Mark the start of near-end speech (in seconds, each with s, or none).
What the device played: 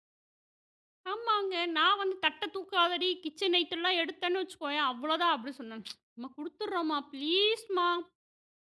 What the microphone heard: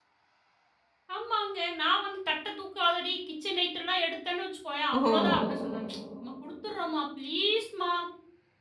5.0 s